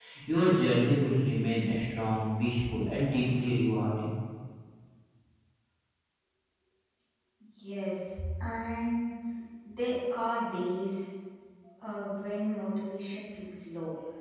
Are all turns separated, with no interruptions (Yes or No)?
Yes